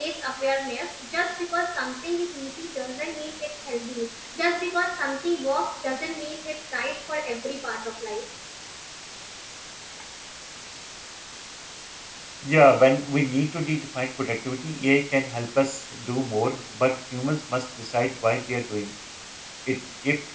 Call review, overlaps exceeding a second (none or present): none